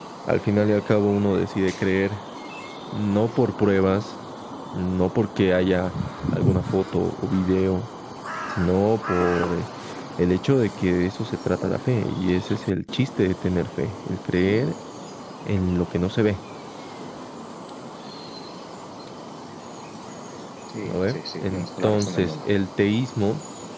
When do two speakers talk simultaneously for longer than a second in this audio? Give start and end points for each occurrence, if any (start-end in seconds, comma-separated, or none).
20.8-22.4